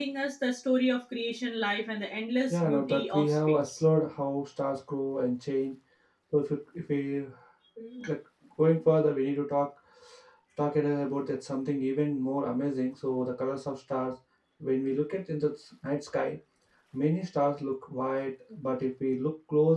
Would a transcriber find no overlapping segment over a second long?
No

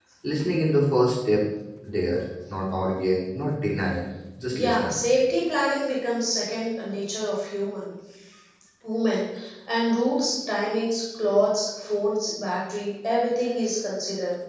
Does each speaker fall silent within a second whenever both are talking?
Yes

